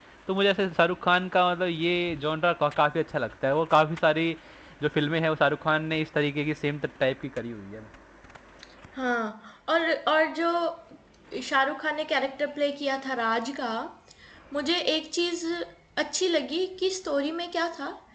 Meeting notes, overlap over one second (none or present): none